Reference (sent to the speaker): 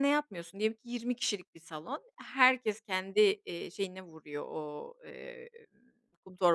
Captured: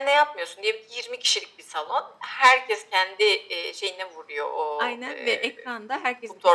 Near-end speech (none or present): present